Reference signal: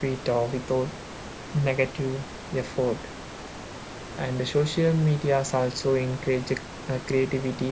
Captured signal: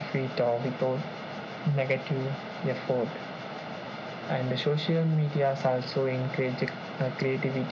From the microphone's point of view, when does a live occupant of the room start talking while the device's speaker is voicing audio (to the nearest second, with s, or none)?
none